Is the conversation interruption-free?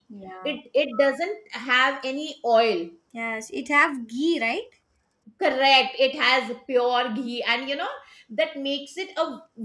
Yes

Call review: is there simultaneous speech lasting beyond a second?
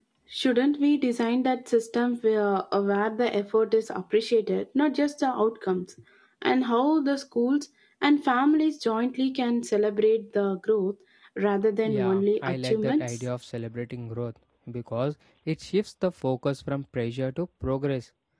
Yes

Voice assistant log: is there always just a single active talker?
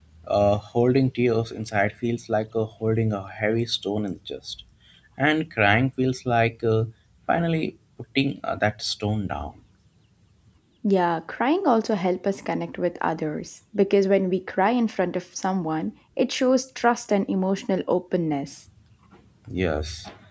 Yes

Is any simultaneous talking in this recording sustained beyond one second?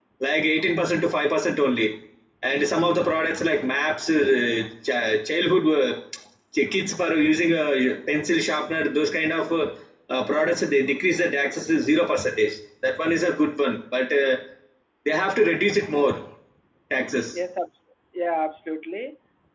No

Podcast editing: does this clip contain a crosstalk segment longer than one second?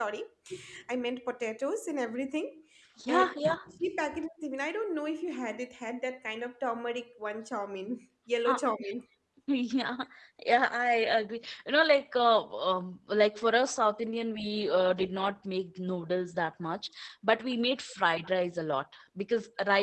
No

